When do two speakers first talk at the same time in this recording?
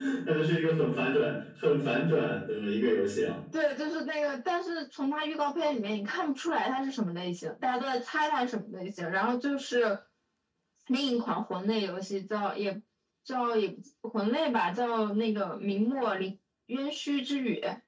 none

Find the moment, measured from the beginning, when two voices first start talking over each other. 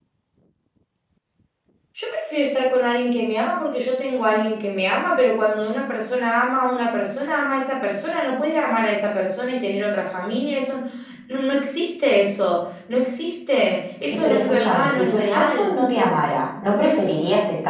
14.2 s

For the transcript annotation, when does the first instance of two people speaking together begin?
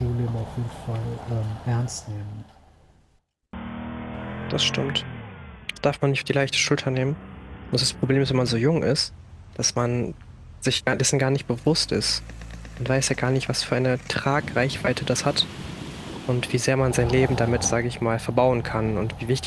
none

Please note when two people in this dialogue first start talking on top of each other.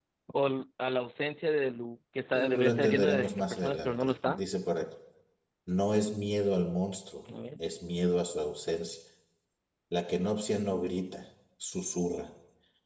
2.3 s

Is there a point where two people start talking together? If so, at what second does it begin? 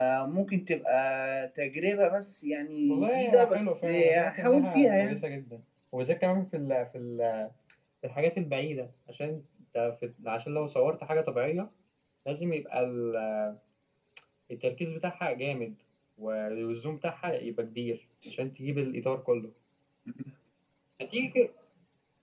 2.9 s

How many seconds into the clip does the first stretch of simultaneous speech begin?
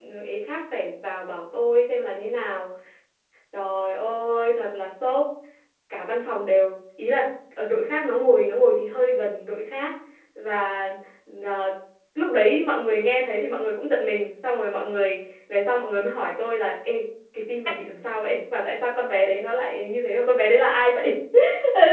none

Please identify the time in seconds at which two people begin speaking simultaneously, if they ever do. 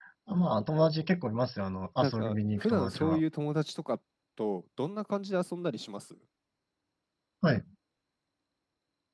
2.0 s

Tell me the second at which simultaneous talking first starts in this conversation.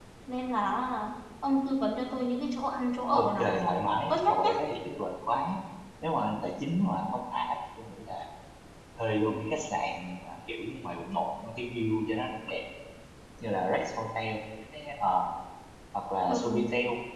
3.1 s

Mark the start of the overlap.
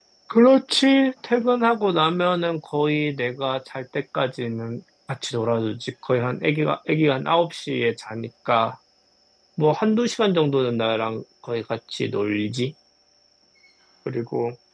none

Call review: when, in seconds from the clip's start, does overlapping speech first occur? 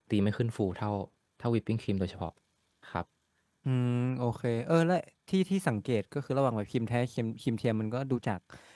none

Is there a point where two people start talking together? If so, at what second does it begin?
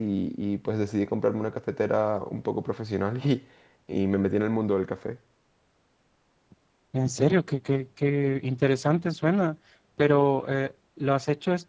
none

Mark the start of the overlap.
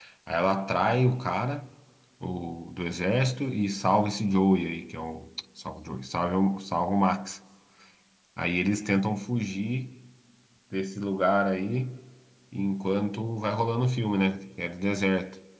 none

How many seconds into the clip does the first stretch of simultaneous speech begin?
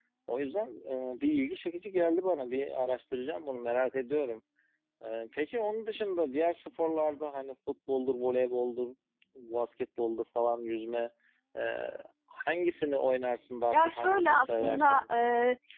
13.7 s

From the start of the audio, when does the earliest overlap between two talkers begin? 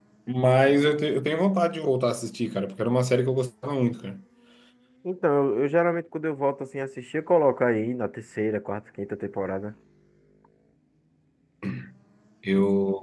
none

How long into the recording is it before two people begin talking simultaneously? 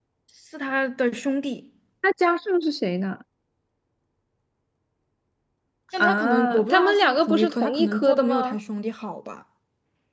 6.0 s

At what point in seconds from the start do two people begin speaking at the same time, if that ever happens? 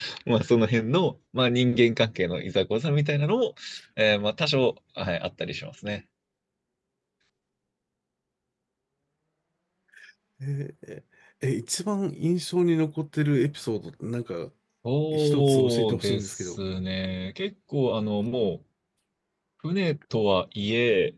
15.1 s

